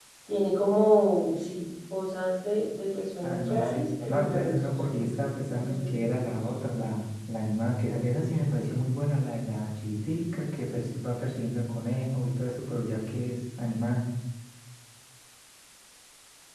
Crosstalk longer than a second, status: present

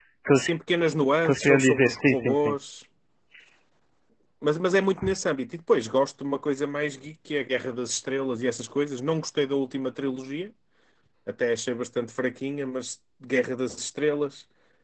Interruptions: present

